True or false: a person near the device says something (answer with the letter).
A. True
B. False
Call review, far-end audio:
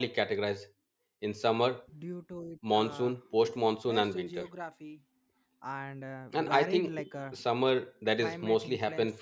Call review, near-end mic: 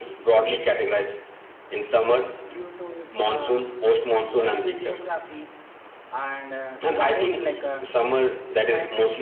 B